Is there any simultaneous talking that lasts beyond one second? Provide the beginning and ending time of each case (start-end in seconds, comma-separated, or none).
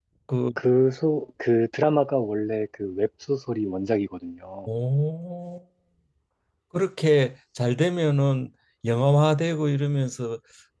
none